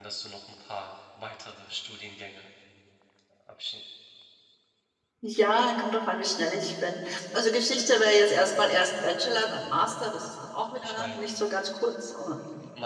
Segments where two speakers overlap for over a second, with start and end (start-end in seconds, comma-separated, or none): none